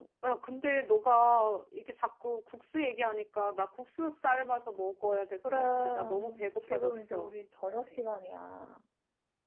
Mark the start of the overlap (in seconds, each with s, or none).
5.4 s